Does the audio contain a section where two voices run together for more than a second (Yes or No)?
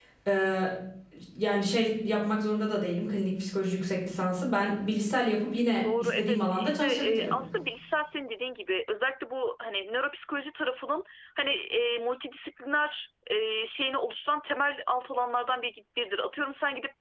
Yes